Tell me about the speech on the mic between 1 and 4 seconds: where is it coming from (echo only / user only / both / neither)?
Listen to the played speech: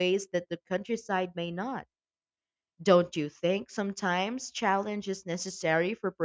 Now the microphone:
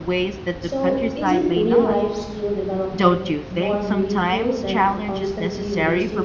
both